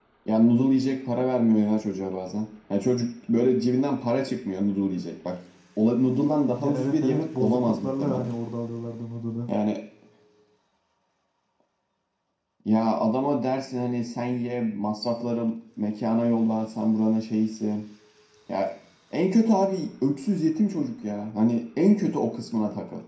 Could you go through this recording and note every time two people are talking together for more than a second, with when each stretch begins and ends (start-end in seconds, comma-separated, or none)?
6.6-8.3